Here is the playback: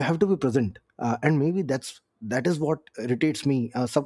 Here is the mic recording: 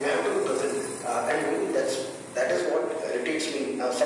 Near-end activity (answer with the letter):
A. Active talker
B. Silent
B